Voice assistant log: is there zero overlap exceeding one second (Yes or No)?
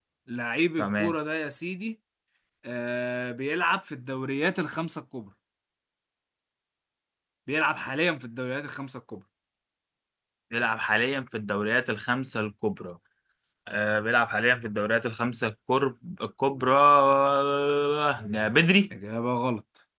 Yes